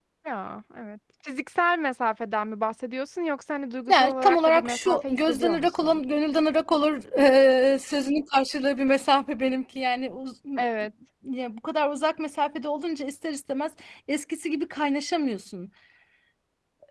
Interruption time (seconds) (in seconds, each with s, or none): 3.9 s